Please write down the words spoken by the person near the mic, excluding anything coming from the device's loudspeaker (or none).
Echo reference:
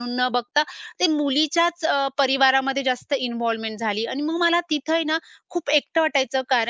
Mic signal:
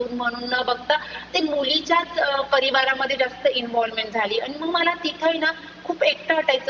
none